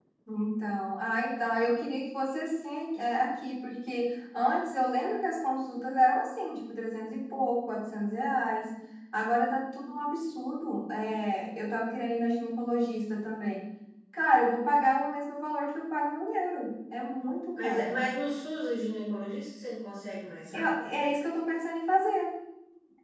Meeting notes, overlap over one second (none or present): none